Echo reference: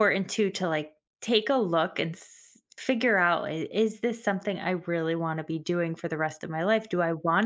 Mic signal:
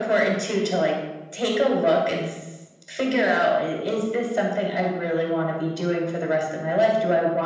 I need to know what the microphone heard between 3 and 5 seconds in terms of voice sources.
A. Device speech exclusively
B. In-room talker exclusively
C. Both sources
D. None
A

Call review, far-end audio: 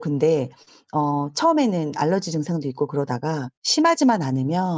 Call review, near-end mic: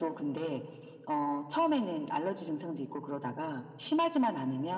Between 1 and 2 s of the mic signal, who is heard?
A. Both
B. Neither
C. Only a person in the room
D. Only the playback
D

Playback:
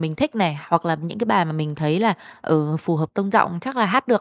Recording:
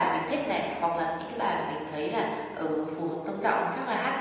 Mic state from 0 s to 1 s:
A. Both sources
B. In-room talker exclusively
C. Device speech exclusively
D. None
C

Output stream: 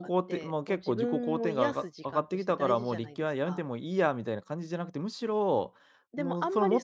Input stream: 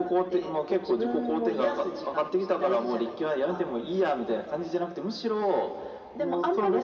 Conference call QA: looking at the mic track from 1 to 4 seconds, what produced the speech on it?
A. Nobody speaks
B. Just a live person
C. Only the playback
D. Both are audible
C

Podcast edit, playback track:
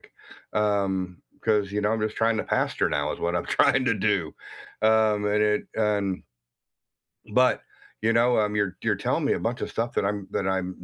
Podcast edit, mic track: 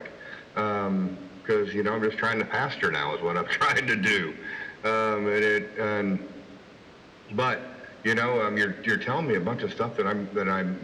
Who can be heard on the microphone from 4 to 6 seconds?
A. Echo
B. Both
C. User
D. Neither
A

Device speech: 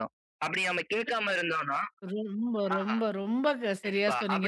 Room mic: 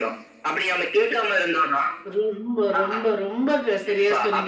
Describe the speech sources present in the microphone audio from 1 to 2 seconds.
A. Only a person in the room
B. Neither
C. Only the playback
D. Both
C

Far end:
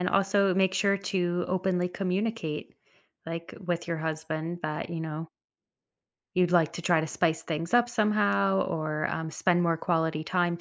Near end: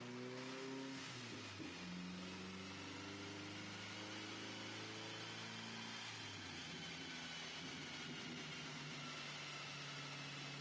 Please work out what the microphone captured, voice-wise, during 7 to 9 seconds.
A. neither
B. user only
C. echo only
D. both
A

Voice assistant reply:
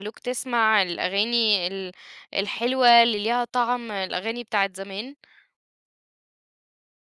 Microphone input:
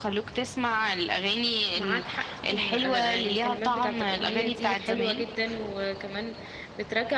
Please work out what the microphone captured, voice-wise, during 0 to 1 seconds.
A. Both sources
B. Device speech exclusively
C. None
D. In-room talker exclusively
B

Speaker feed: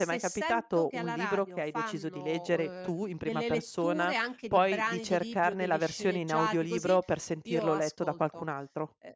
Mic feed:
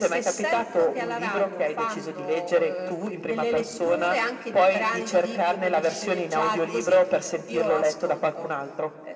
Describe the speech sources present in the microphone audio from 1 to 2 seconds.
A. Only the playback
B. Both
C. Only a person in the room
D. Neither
A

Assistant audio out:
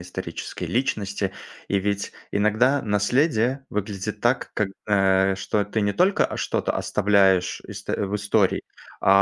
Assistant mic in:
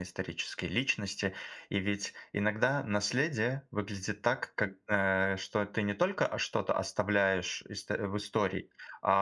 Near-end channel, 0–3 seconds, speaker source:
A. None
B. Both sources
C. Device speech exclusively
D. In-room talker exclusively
C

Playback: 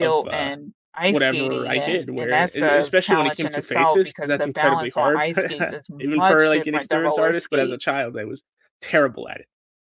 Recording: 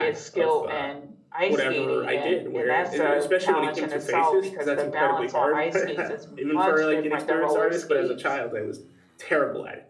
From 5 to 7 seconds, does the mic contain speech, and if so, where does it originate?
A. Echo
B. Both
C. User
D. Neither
A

